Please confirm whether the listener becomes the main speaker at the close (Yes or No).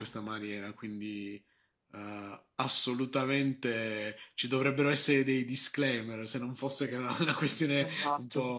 Yes